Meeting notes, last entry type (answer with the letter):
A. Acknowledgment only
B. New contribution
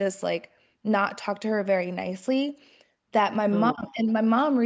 A